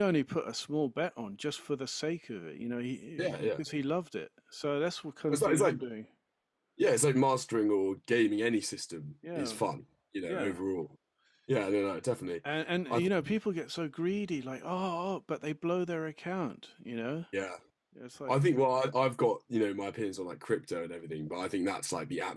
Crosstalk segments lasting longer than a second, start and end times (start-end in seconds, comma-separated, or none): none